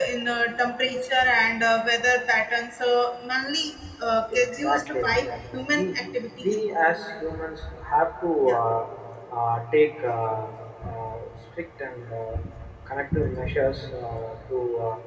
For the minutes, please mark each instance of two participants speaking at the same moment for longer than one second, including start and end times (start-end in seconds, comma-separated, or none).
4.3-5.9